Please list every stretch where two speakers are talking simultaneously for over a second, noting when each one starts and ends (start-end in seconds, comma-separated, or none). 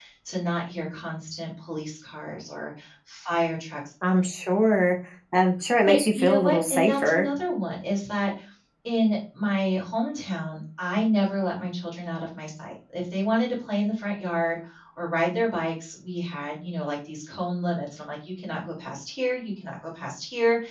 5.8-7.3